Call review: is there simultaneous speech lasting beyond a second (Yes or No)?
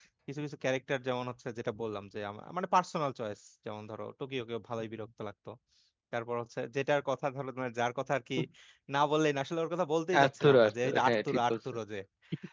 Yes